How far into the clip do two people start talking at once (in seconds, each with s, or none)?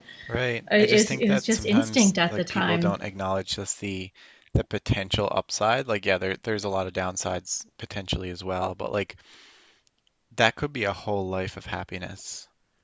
0.8 s